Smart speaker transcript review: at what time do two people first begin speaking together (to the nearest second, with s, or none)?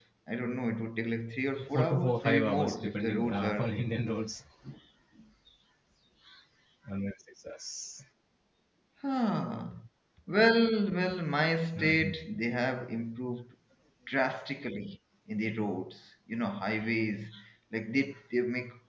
2 s